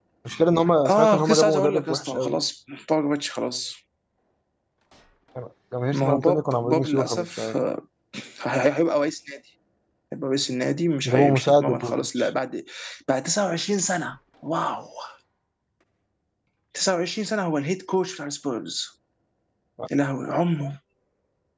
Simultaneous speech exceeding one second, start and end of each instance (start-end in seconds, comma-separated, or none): 0.9-2.4, 5.9-7.5, 11.0-12.3